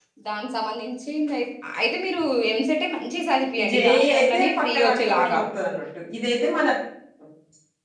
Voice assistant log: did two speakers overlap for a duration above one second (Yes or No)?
Yes